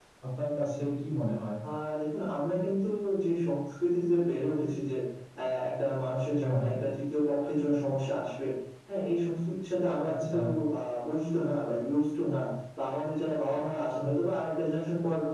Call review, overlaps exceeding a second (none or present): none